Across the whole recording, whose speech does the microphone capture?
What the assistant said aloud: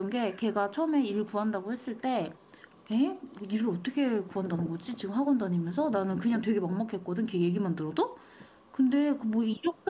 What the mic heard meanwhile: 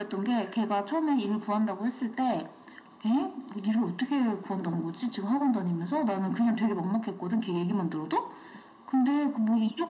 echo only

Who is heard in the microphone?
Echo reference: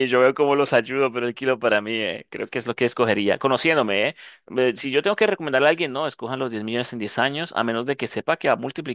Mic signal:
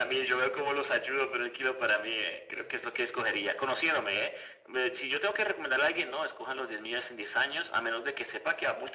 echo only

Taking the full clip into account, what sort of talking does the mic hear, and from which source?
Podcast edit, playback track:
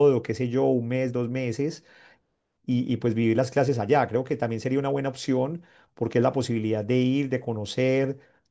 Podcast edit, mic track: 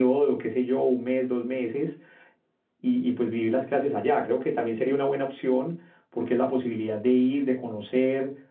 echo only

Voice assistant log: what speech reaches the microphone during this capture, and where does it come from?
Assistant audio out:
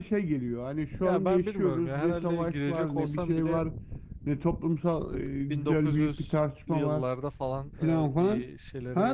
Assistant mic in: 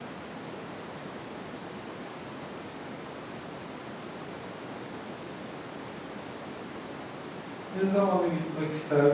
user only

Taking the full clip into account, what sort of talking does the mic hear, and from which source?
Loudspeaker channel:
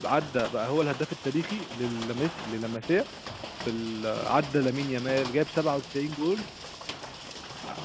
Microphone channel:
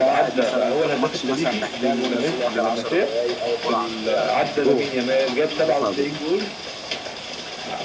both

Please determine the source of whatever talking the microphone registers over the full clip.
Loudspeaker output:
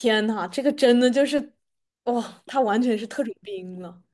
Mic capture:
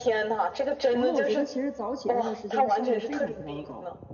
both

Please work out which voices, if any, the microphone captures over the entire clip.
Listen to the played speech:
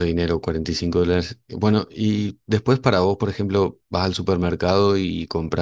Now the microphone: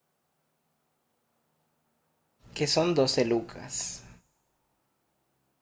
user only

